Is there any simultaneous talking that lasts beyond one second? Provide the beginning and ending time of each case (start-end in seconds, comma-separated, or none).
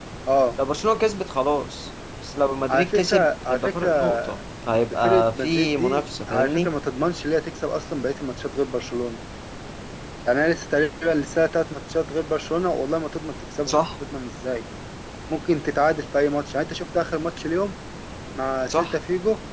2.7-4.2, 5.0-6.7